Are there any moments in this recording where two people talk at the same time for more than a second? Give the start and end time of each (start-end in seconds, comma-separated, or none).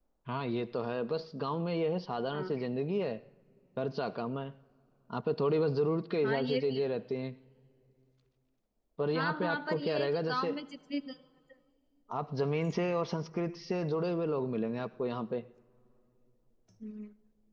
9.2-10.6